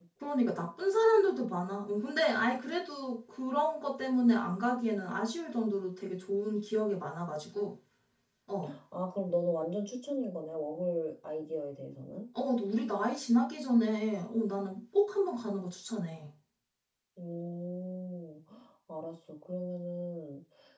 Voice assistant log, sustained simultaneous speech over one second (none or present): none